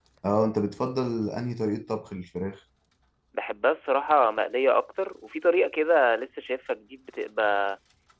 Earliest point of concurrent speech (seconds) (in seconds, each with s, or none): none